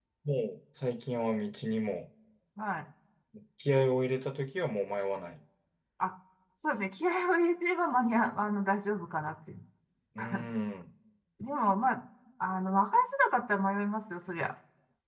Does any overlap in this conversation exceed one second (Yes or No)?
No